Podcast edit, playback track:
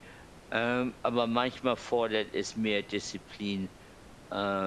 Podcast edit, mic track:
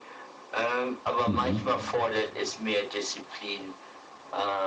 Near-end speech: present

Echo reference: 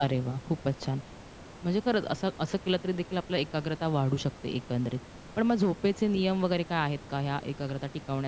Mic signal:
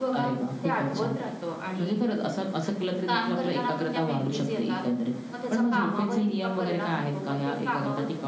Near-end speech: present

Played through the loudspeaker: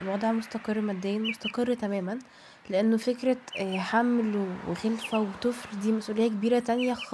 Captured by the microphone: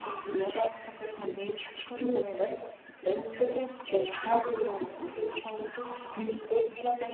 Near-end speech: none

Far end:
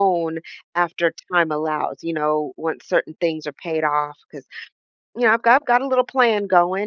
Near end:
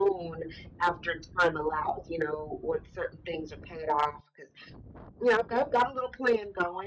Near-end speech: none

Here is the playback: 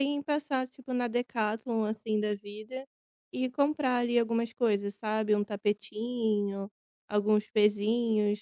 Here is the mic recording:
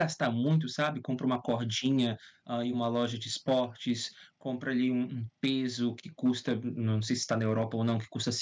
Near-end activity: present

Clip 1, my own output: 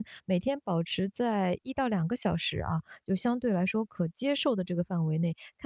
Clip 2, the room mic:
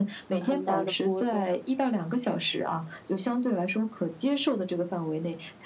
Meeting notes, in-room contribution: present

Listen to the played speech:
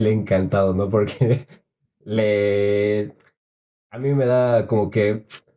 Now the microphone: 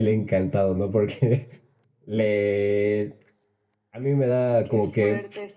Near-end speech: present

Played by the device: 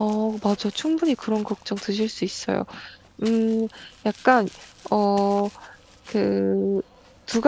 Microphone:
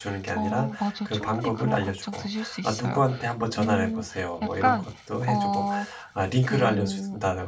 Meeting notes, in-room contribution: present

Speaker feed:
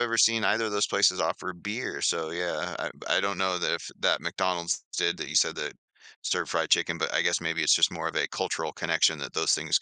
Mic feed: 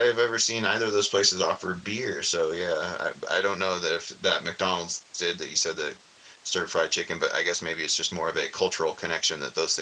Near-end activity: none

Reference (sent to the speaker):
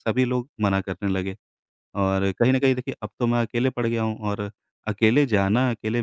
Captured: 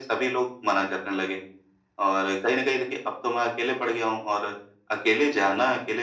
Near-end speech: none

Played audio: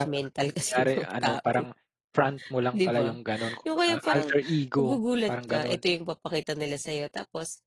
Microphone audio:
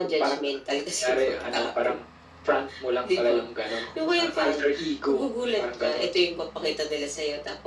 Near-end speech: none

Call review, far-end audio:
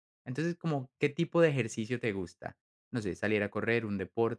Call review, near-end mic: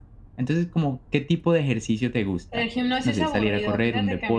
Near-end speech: present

